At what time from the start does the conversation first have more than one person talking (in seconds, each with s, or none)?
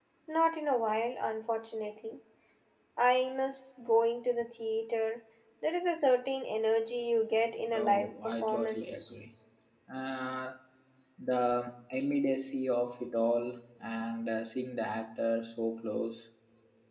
7.7 s